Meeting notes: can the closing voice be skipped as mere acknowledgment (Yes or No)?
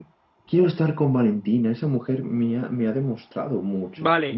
No